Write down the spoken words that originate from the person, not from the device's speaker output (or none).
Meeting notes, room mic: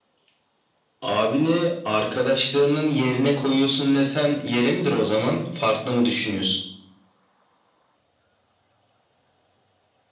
none